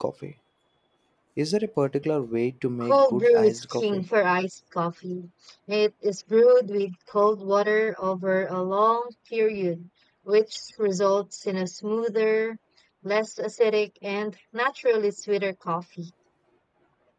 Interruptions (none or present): present